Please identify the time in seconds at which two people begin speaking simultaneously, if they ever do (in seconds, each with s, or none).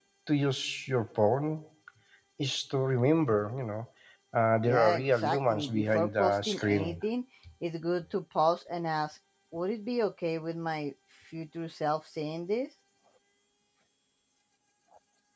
4.6 s